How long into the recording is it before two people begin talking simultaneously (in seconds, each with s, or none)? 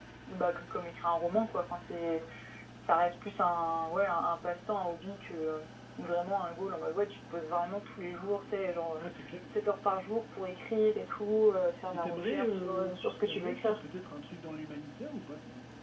11.9 s